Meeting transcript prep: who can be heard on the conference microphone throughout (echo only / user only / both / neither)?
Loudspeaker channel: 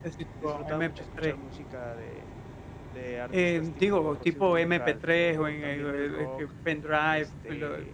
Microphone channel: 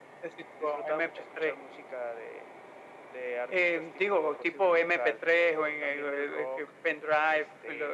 echo only